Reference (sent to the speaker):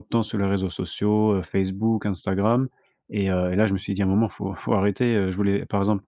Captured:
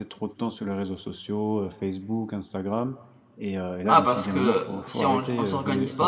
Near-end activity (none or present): present